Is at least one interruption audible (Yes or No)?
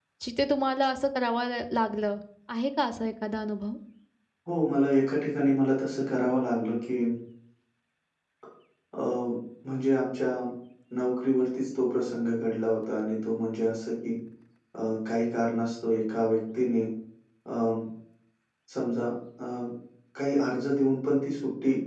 No